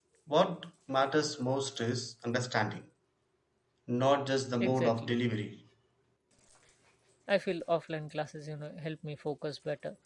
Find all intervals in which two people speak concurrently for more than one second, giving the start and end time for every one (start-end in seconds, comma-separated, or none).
none